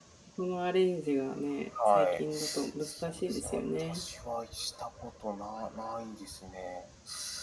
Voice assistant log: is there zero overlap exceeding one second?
No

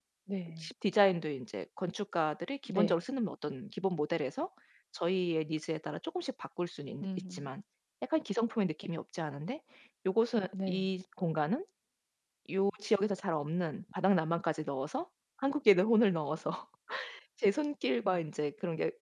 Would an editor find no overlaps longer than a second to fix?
Yes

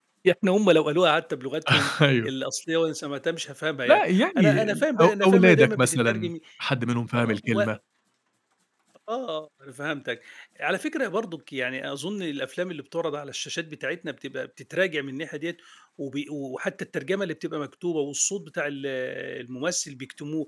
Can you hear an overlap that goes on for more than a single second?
Yes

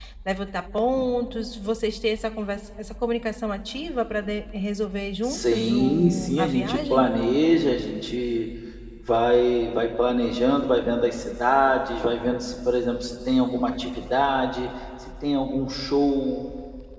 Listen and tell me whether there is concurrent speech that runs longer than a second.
Yes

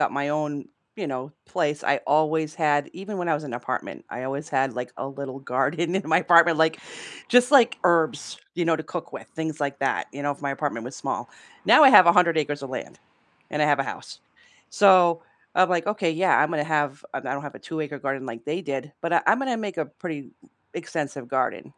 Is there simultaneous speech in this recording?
No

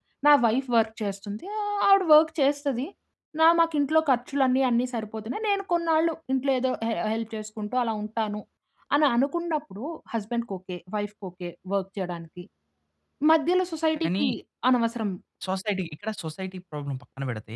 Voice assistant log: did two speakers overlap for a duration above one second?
No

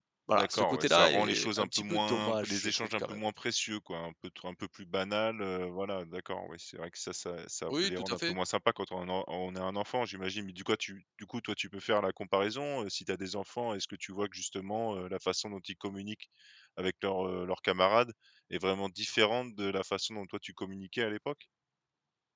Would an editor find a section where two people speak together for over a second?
Yes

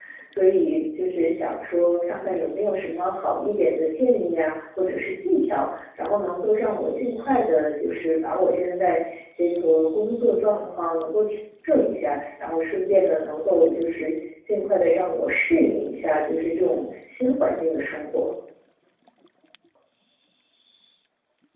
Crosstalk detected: No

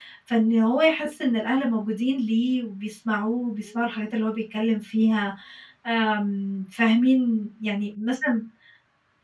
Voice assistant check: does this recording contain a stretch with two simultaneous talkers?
No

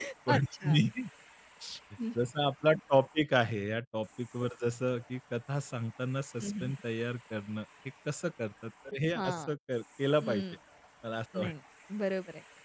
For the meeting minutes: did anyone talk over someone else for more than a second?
No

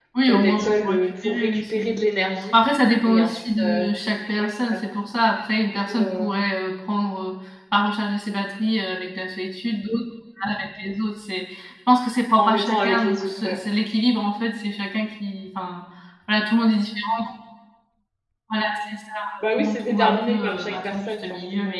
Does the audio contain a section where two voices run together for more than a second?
Yes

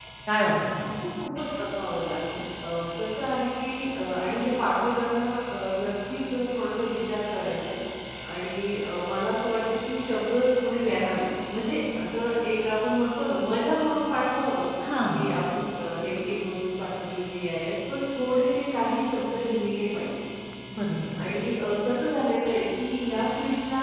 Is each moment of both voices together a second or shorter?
Yes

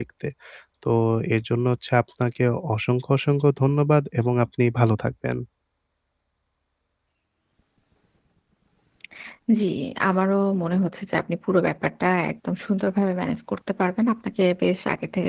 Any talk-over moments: No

